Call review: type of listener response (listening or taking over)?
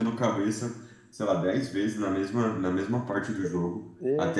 listening